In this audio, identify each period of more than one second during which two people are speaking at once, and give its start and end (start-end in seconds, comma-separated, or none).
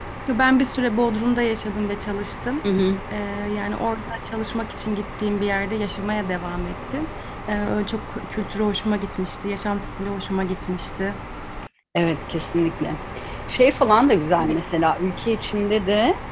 none